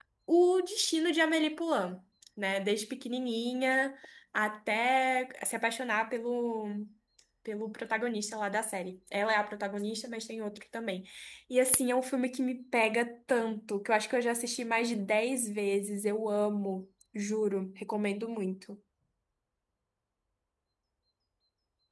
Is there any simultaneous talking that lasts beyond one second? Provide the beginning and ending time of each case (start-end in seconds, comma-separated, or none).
none